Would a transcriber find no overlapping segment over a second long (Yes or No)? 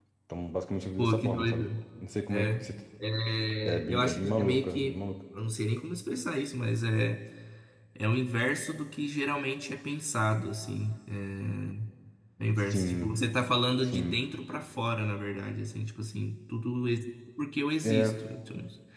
No